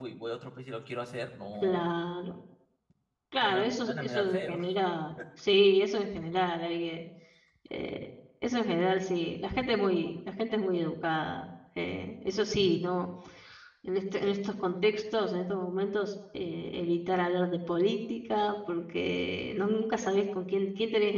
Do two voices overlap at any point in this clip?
Yes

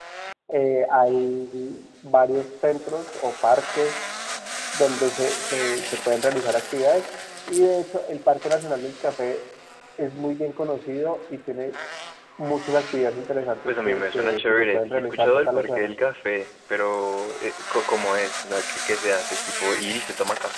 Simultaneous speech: Yes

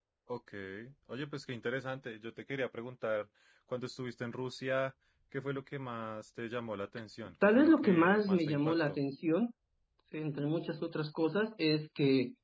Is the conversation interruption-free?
No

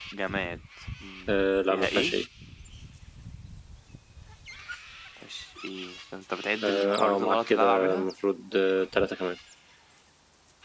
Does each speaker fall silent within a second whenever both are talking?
No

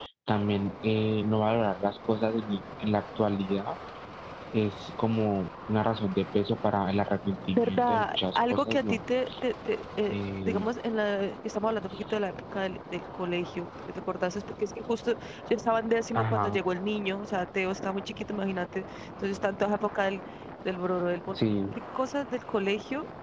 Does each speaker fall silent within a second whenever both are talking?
No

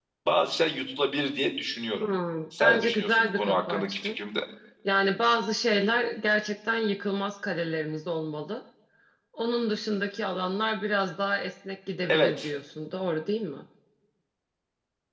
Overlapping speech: Yes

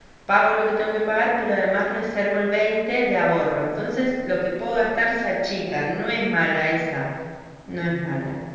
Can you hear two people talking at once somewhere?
No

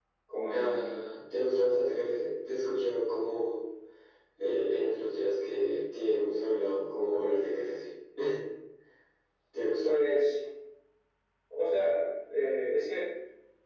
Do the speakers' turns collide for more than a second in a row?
No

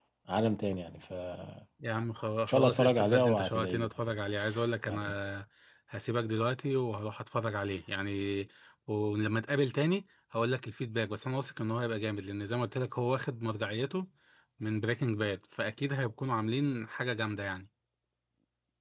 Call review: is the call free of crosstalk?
No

